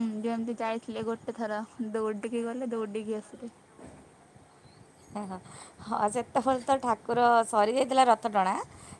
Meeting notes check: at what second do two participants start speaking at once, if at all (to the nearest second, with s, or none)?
none